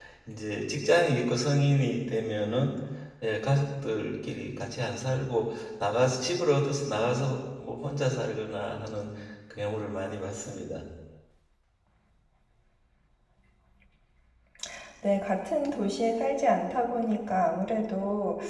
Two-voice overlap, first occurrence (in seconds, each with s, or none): none